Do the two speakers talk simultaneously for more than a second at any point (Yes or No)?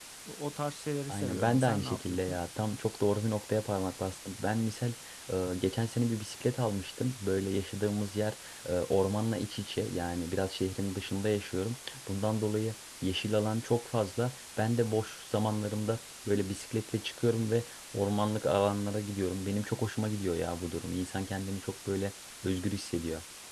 Yes